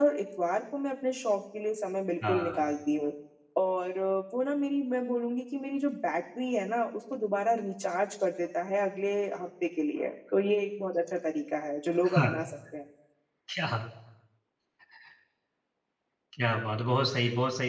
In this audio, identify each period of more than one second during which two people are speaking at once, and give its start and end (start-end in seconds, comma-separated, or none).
none